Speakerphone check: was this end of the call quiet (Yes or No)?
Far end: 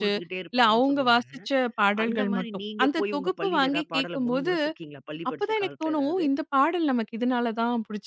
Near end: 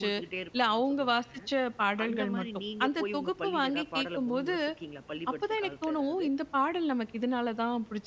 Yes